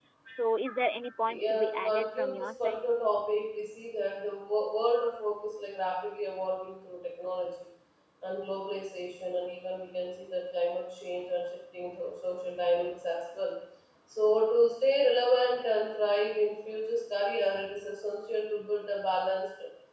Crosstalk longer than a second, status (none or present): present